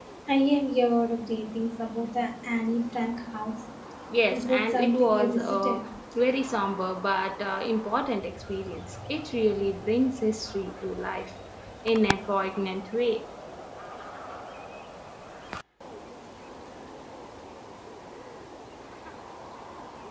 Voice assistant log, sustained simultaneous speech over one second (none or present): present